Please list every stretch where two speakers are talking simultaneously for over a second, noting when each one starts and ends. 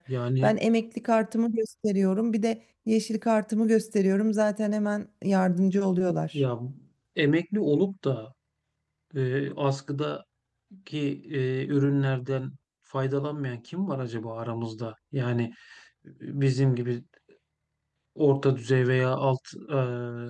none

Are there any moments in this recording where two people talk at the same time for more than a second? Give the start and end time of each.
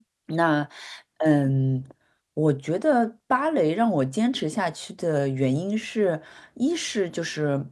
none

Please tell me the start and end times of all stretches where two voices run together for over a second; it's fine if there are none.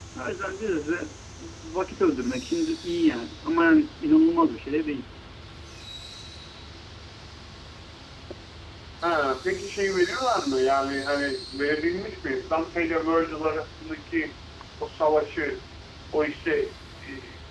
none

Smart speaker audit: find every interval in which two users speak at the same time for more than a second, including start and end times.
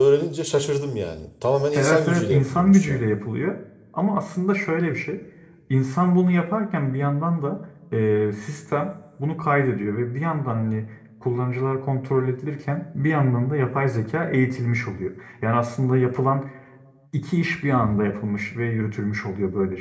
1.7-3.0

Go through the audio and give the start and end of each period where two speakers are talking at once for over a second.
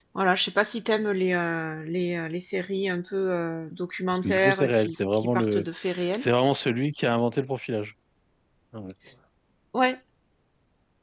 4.2-5.7

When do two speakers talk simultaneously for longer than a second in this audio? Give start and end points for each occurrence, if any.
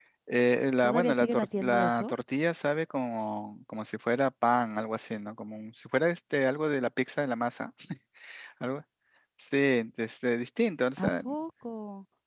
0.8-2.1

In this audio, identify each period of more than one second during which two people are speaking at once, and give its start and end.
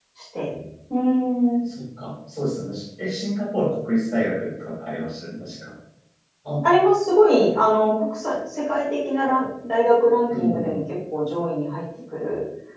none

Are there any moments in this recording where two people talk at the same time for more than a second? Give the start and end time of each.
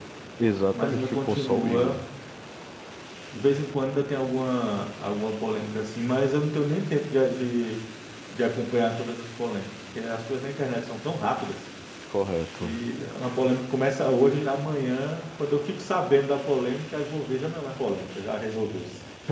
0.7-2.0

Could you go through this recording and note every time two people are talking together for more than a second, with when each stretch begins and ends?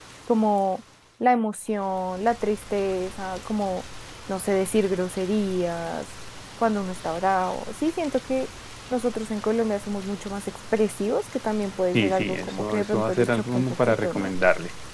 11.9-14.3

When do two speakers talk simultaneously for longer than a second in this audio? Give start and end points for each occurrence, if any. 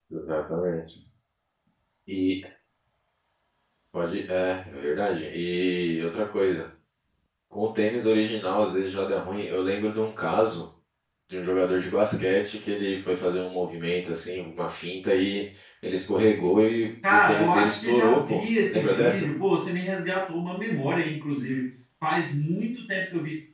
17.1-19.2

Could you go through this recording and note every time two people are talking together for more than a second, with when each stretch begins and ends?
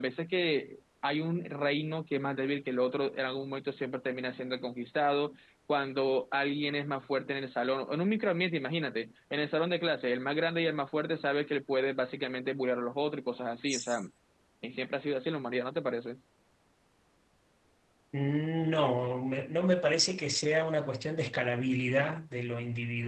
none

